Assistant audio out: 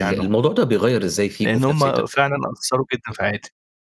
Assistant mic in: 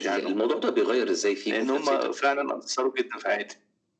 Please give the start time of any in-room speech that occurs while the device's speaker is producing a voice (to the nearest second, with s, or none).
none